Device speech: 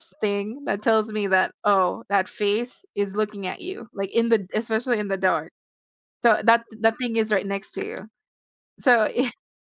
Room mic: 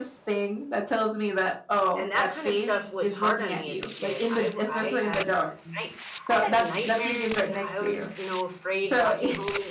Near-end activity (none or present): present